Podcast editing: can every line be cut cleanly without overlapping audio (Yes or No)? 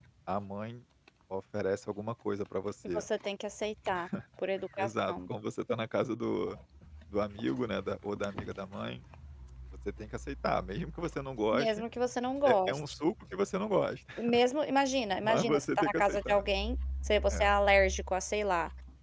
No